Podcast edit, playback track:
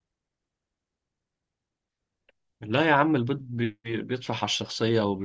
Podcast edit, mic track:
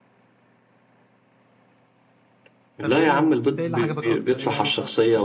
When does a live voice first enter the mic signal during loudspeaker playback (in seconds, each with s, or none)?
2.8 s